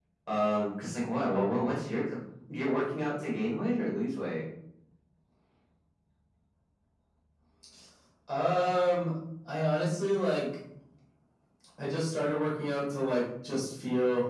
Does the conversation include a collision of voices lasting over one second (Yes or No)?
No